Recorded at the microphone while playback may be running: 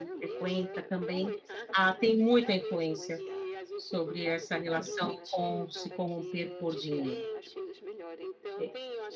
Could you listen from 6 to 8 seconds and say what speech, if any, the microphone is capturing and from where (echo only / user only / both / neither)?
both